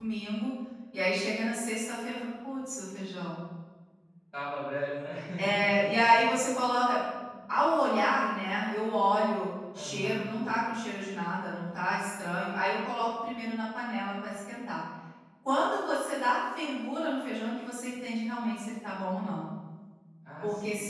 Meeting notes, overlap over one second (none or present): none